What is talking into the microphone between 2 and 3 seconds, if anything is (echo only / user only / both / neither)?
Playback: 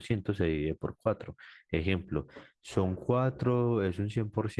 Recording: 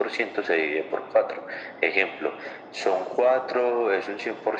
echo only